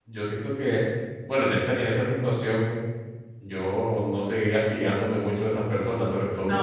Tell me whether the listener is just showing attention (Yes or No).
Yes